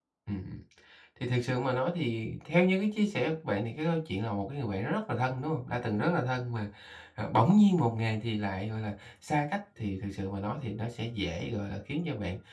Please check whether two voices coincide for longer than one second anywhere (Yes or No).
No